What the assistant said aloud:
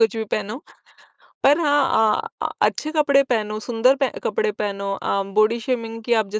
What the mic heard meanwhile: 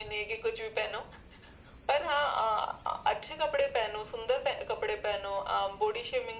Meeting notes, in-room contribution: none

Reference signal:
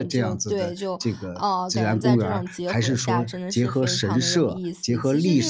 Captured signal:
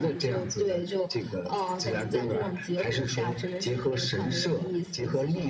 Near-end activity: none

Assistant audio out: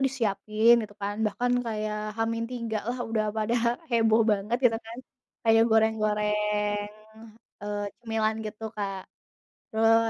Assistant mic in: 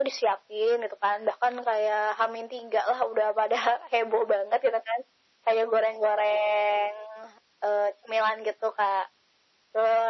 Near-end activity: none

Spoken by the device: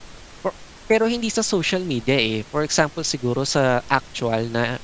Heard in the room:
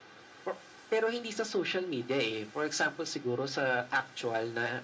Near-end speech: none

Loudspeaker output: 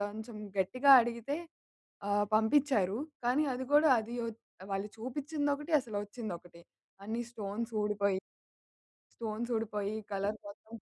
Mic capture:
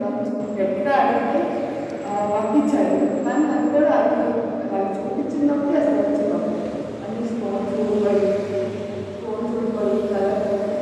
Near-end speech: none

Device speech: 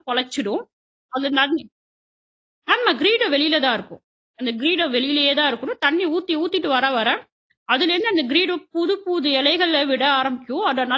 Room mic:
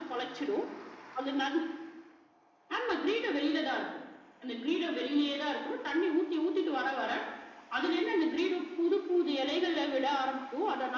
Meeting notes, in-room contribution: none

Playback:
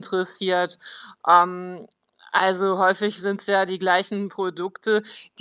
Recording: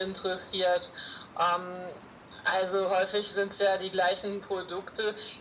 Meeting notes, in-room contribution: none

